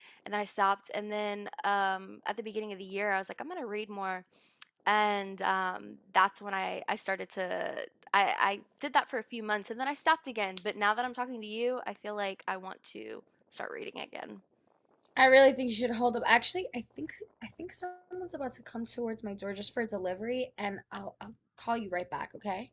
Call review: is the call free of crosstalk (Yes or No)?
Yes